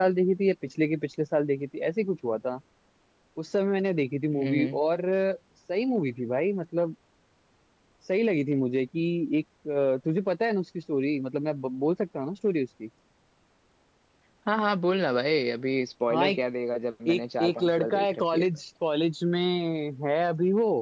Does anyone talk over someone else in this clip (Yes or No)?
Yes